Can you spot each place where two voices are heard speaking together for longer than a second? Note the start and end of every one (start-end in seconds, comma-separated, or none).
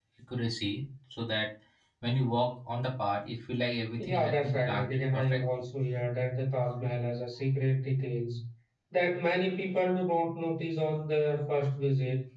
4.0-5.4